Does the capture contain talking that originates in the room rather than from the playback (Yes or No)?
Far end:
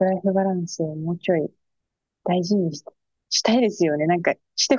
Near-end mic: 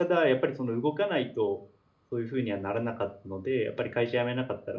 Yes